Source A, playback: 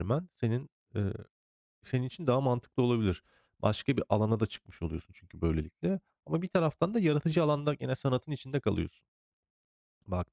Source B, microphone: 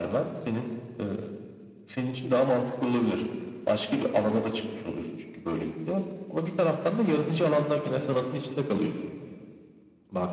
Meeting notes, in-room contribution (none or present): none